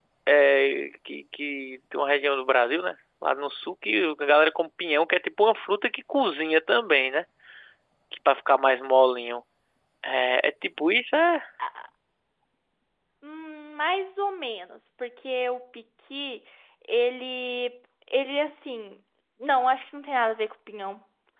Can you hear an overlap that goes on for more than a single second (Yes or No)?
No